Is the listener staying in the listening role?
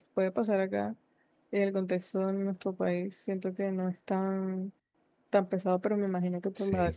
Yes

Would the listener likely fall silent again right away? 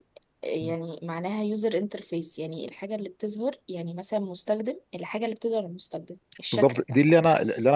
No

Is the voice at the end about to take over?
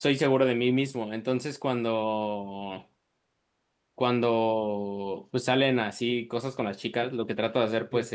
No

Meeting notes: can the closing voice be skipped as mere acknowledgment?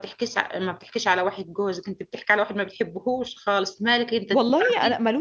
No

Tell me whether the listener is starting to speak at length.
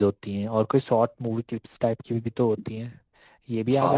Yes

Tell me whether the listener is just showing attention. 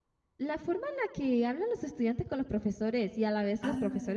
Yes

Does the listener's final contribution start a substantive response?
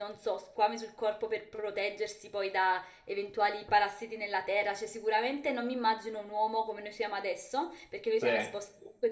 No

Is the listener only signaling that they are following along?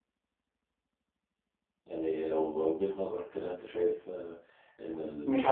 No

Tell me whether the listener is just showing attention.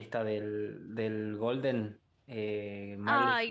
No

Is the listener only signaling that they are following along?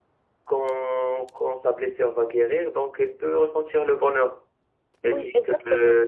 Yes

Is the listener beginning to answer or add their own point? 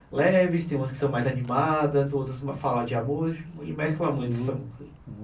Yes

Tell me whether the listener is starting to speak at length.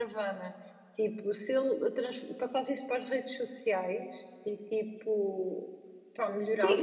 Yes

